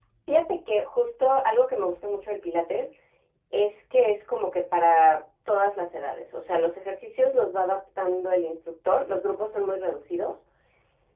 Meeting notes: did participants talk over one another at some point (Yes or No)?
No